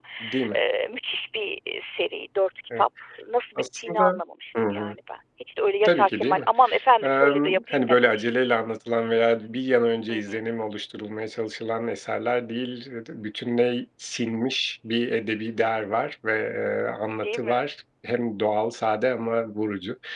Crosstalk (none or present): present